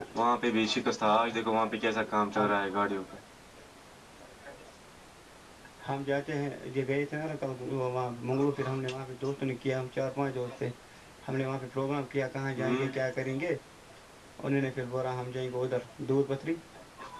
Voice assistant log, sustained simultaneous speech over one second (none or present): none